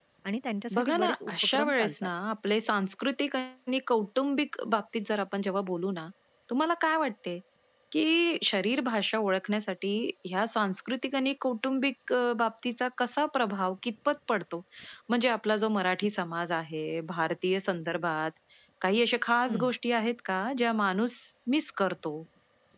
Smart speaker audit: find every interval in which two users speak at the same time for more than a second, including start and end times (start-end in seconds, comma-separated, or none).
0.7-1.9